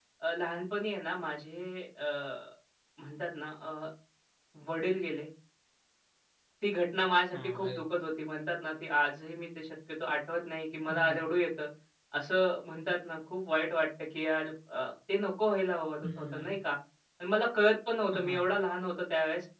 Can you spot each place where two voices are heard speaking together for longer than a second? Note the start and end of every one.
none

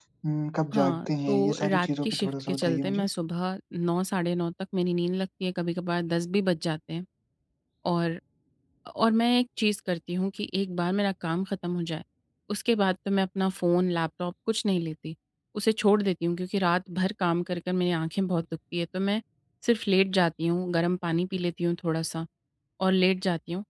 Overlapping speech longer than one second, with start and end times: 0.7-3.1

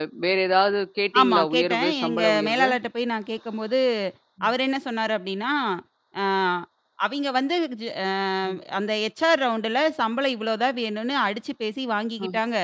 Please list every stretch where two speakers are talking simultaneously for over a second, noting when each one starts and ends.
1.2-2.7

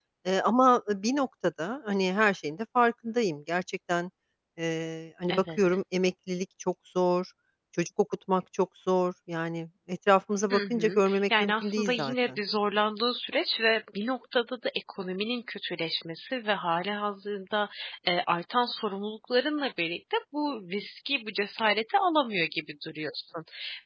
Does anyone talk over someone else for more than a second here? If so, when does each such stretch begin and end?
10.5-12.4

